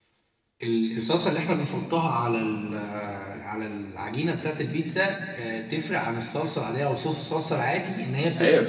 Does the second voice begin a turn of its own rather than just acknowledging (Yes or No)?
Yes